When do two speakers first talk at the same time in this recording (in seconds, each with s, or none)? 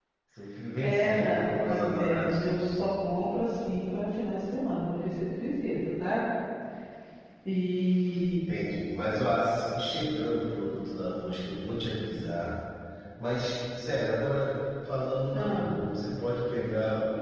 0.8 s